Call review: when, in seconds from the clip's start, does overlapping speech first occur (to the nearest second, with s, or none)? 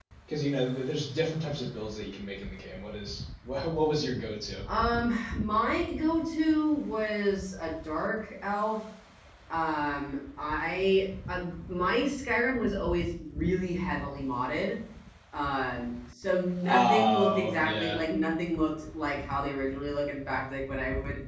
17 s